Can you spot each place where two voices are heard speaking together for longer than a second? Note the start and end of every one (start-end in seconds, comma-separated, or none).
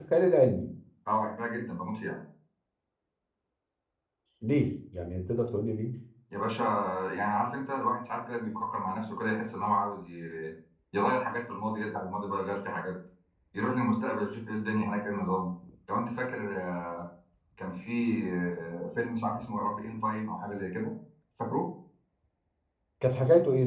none